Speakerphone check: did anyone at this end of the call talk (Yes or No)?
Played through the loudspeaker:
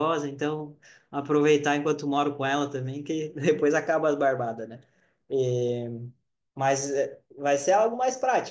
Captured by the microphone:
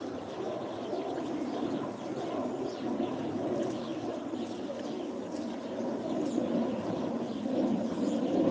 No